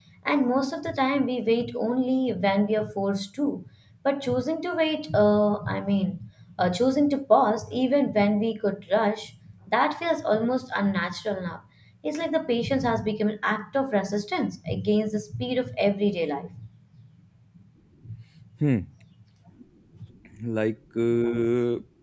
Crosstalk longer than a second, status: none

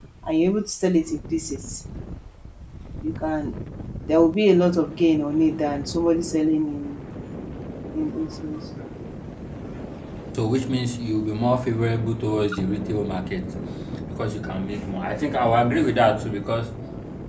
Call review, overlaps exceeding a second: none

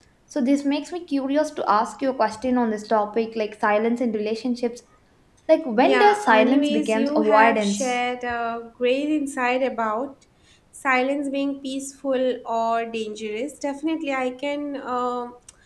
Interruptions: present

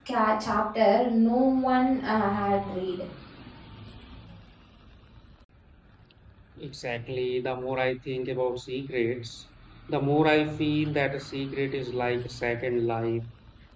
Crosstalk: none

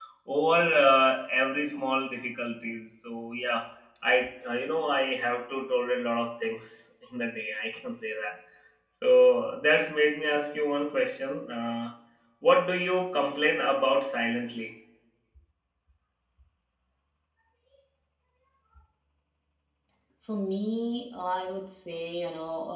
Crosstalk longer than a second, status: none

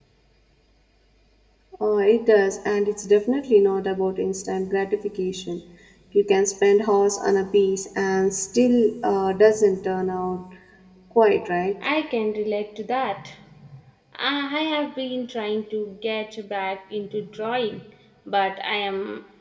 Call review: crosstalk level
none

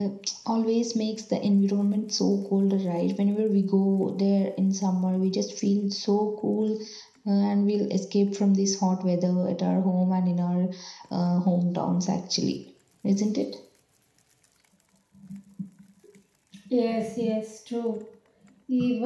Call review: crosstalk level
none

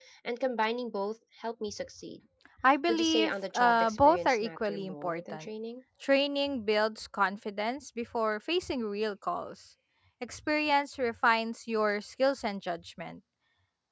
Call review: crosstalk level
present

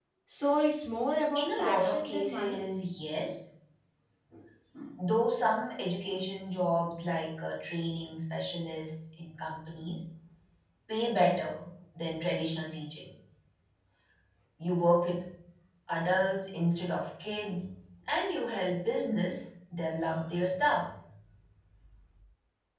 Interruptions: present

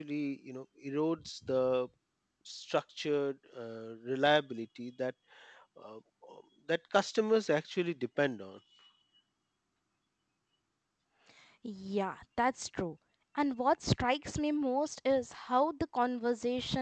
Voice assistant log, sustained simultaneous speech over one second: none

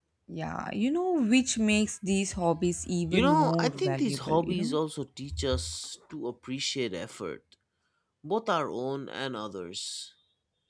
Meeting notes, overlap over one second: present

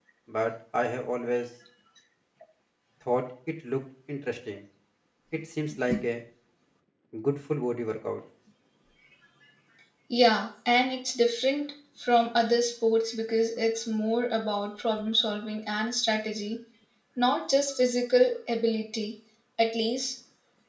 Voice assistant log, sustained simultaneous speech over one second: none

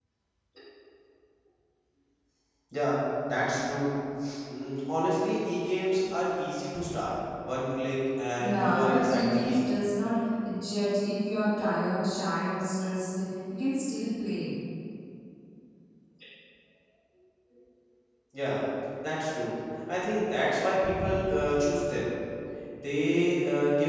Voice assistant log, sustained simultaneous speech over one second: present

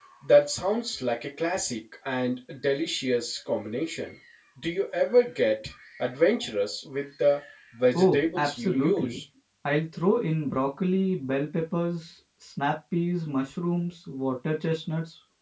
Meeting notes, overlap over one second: present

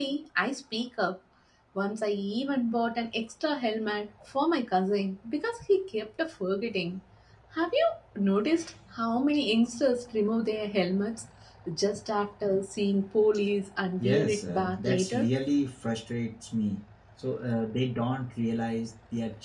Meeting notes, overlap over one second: present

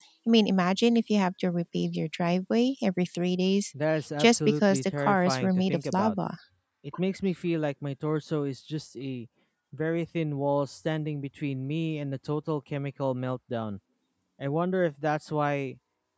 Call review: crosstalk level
present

